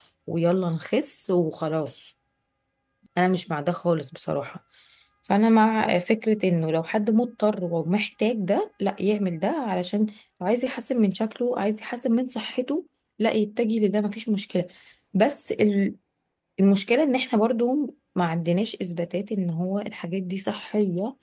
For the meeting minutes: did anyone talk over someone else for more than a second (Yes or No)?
No